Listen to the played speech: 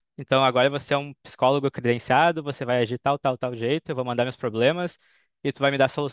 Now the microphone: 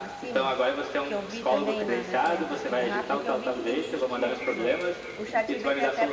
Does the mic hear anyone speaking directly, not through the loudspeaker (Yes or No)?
Yes